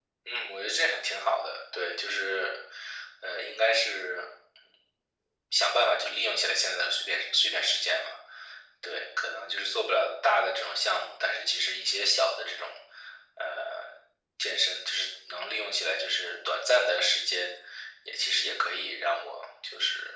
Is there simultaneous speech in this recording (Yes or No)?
No